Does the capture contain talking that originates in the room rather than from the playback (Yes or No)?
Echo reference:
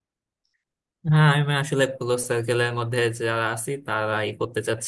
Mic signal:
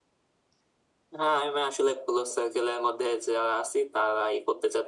No